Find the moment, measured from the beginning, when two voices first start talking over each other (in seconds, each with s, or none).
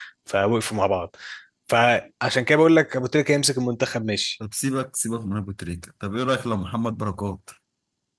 none